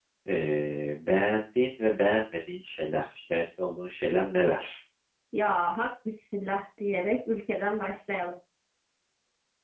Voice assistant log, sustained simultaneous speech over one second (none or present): none